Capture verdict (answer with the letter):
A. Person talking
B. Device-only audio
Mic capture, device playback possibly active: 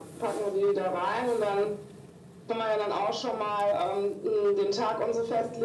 B